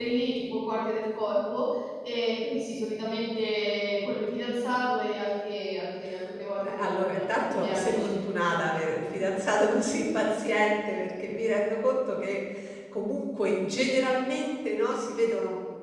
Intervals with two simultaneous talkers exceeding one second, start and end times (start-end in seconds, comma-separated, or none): 6.6-8.1